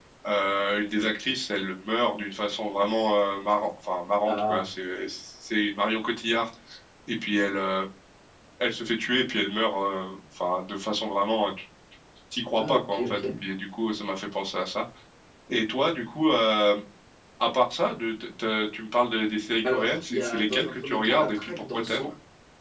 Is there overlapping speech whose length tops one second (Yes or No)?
Yes